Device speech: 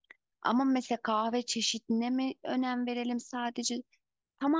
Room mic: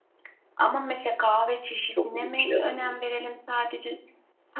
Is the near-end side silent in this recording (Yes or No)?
No